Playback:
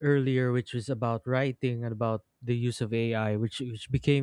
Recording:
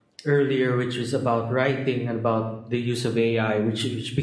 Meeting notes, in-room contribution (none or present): none